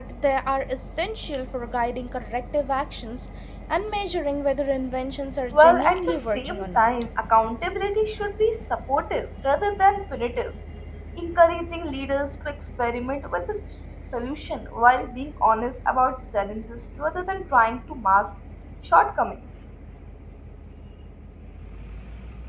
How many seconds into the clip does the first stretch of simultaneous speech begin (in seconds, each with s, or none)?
5.5 s